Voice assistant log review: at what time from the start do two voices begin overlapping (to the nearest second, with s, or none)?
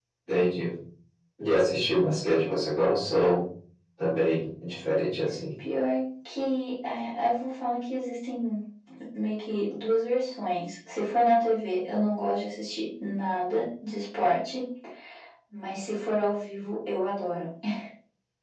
none